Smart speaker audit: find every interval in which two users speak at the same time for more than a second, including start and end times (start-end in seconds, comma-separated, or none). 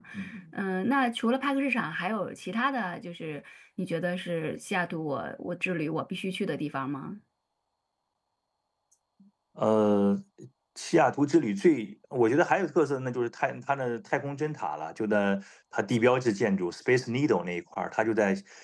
none